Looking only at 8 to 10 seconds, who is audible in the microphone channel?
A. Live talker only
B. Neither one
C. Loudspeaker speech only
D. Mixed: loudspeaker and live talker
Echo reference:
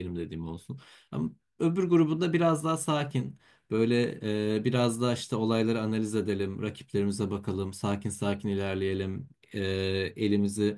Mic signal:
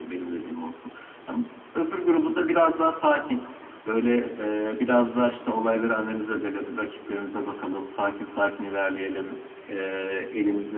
C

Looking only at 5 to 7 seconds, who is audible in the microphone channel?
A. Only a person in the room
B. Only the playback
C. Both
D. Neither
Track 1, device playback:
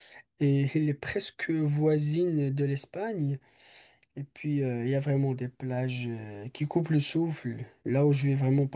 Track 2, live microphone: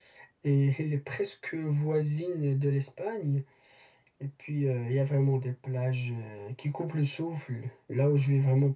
B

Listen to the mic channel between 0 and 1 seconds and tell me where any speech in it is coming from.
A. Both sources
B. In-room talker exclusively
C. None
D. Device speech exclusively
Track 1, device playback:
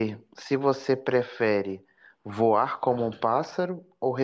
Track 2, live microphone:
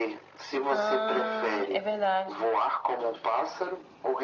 A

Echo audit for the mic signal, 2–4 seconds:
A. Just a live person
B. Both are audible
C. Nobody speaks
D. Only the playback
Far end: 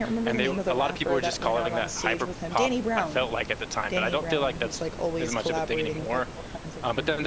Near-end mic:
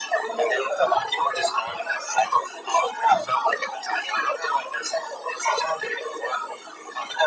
D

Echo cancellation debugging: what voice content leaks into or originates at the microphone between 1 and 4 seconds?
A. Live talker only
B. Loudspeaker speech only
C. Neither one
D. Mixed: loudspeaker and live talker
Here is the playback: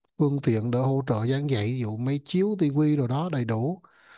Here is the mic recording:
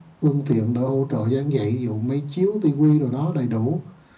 B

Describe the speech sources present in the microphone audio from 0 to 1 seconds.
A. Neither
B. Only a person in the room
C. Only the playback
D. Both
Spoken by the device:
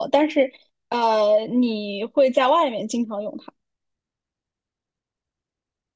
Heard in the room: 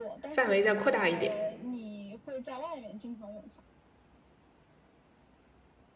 D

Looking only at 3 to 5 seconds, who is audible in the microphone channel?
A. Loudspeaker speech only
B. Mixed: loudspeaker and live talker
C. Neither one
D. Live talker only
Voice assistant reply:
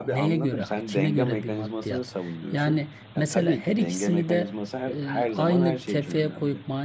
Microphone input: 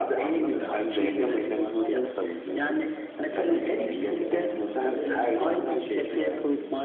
B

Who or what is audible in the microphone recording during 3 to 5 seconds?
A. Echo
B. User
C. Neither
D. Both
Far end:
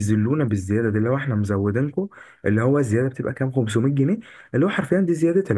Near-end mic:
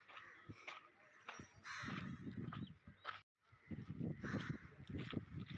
C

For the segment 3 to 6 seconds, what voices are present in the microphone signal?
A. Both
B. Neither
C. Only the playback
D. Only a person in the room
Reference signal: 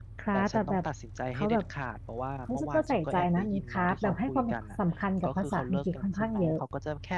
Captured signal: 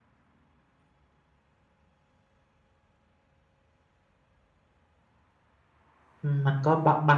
B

